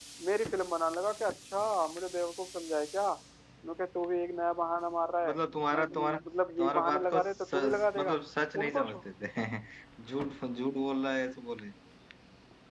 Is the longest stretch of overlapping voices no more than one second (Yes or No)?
No